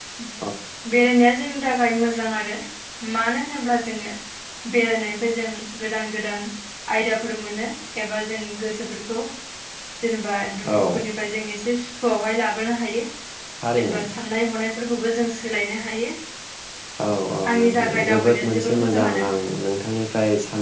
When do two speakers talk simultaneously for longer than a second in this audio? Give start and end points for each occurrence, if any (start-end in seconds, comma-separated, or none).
17.6-19.2